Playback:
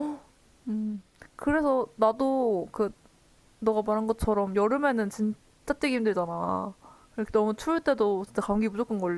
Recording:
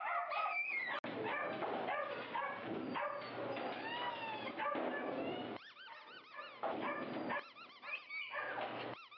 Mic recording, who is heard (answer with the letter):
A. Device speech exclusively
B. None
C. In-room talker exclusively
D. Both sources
B